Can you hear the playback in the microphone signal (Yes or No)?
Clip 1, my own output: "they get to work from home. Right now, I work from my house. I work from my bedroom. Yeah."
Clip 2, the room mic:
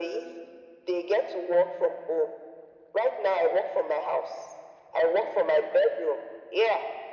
Yes